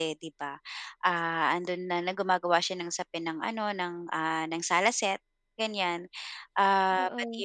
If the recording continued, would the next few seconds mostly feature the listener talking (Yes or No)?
No